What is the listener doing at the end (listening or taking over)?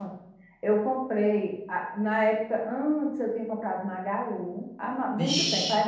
listening